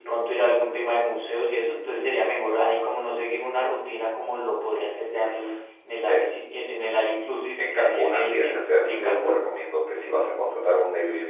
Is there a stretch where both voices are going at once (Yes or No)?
Yes